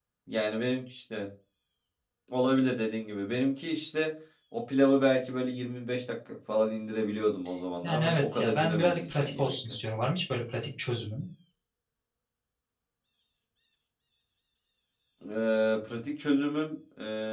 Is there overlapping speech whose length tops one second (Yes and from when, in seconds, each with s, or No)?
Yes, from 7.8 s